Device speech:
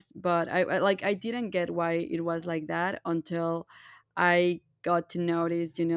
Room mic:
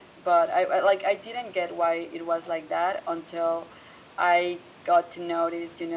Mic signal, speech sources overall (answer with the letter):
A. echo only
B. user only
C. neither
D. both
A